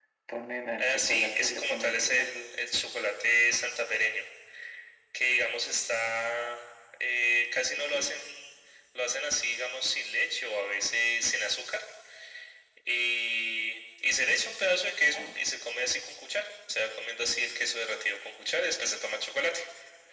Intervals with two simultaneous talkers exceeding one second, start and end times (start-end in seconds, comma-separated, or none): 0.8-2.3